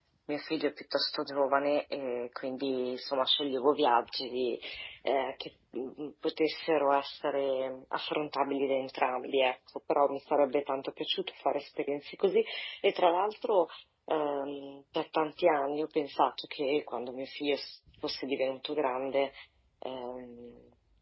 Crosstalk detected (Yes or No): No